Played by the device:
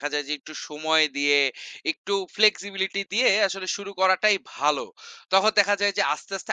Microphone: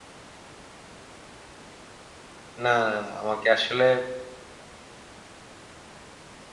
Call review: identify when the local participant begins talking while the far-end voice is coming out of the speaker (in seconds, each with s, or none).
2.6 s